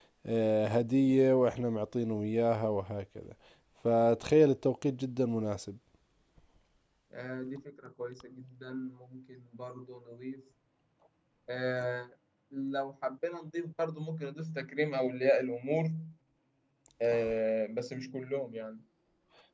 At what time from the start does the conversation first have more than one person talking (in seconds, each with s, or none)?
none